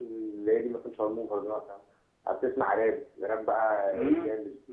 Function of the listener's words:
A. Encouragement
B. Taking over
B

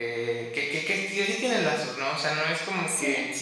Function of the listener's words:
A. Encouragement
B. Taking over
A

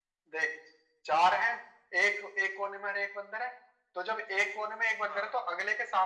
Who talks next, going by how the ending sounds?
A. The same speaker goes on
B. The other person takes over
A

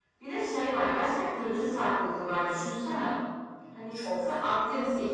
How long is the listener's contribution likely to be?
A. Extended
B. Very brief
B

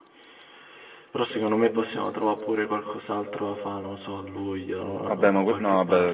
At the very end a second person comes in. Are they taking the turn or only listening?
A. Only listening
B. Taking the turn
B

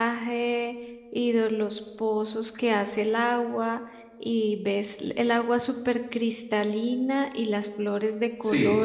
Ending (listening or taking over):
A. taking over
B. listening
B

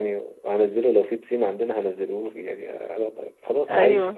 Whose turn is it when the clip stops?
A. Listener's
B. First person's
B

